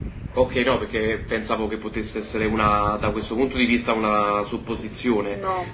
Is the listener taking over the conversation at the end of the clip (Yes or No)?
No